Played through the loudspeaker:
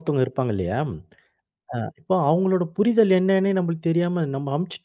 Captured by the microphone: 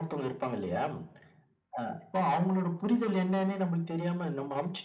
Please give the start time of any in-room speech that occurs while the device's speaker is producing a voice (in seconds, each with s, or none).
none